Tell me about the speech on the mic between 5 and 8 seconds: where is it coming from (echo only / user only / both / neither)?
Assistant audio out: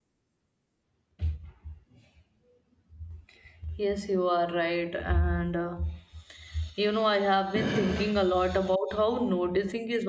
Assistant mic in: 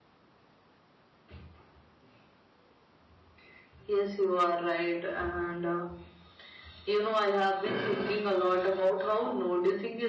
echo only